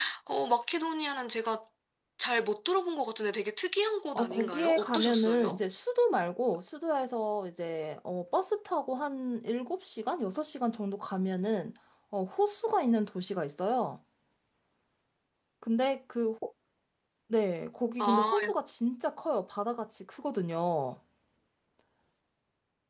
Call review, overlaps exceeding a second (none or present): present